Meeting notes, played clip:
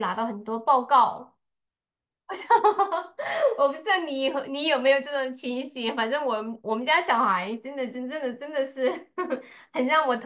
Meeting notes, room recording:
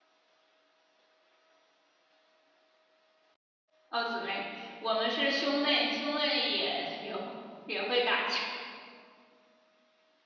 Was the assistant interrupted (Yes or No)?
Yes